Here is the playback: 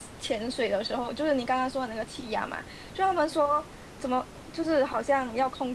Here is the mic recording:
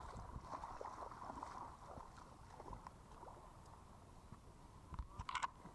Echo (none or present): none